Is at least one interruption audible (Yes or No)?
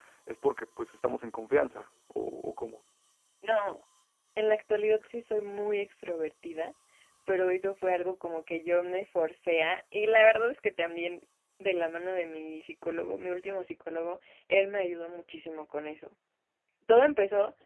No